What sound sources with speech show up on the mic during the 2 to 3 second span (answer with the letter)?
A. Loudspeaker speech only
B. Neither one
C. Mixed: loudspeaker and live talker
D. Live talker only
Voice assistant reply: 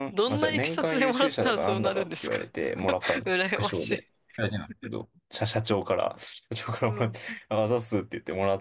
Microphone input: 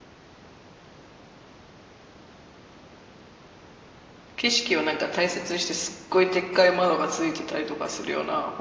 B